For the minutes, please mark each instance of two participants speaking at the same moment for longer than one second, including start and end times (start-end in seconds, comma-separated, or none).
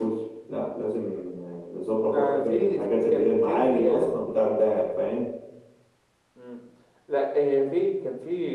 2.1-4.1